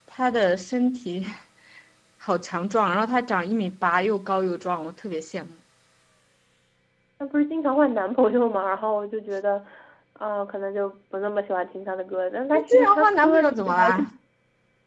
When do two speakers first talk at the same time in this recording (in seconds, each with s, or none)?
12.5 s